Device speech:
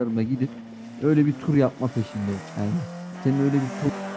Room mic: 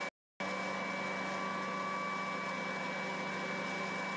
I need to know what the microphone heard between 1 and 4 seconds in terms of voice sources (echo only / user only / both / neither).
neither